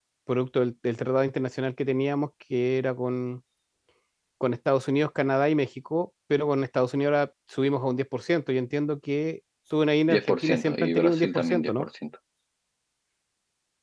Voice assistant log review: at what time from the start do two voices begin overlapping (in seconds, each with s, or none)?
10.1 s